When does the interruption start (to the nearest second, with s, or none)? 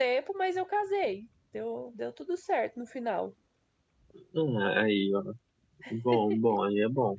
none